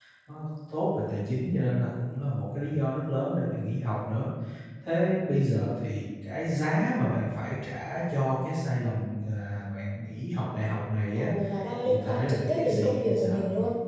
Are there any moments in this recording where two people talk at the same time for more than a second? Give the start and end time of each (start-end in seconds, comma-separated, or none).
11.8-13.4